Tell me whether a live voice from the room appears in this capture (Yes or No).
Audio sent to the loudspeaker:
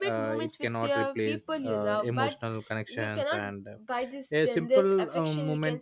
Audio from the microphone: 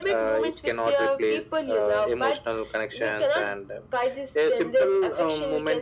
No